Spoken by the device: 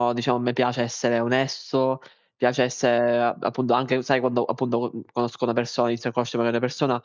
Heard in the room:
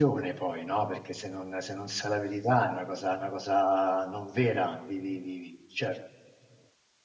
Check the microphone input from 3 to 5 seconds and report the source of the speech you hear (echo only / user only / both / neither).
user only